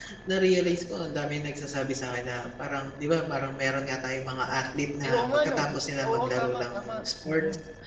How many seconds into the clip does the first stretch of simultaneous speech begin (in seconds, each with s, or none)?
5.0 s